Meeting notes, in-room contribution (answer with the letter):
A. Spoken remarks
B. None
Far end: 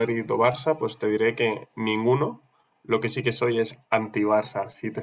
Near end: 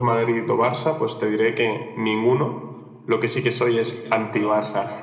A